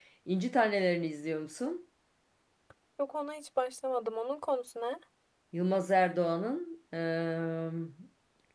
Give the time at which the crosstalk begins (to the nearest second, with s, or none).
none